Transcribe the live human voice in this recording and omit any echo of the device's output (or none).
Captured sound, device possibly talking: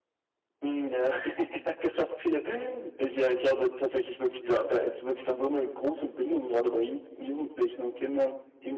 Ja.